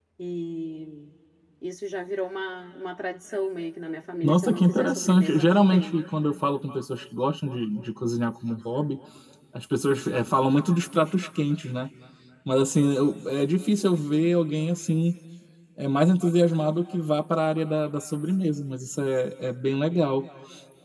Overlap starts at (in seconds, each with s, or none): 4.2 s